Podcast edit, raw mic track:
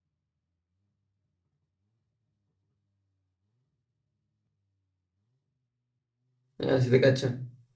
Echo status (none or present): none